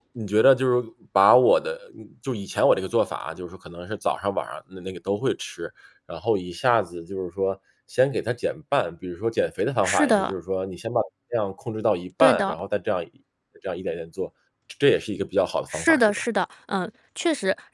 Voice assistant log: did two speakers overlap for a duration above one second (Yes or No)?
No